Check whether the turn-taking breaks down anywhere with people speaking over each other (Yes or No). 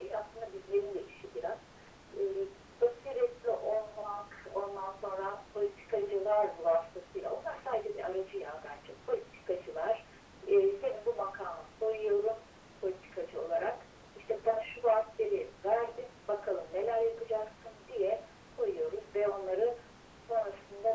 No